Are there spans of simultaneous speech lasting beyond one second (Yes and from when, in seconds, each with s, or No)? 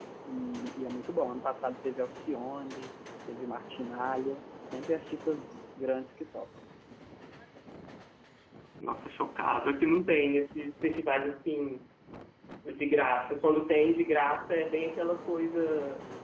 No